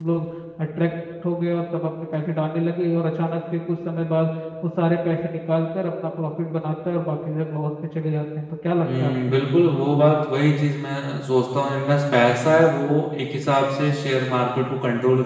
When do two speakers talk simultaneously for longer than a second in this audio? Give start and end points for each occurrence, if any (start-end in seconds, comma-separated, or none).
none